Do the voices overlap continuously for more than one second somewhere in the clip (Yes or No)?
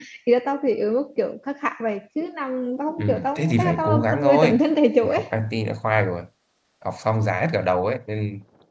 Yes